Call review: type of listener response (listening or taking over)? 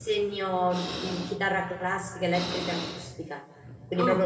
listening